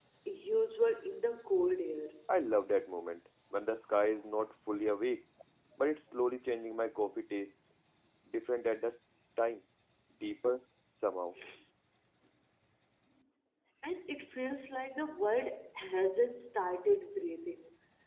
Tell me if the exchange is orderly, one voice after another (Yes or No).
Yes